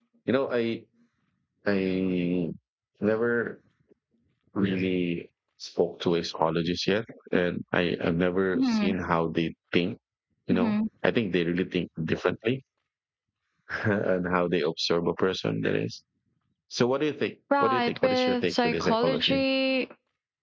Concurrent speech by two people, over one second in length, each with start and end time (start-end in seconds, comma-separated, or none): 17.6-19.4